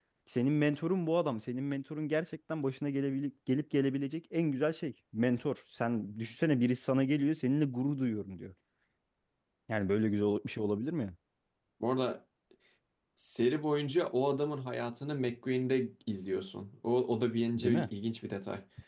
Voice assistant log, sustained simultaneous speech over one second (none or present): none